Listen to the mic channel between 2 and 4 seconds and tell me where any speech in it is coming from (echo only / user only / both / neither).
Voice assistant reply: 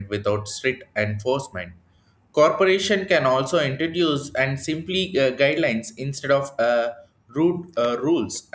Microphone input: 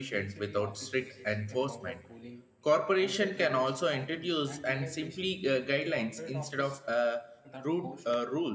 both